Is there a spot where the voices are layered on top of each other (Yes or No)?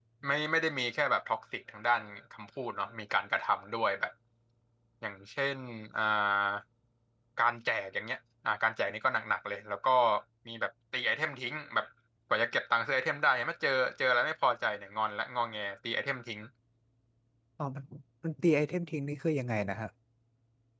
No